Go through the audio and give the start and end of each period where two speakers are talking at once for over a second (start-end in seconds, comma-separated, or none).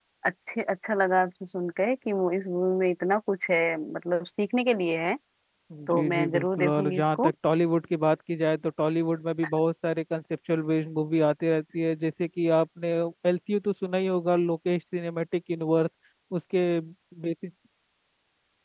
5.9-7.3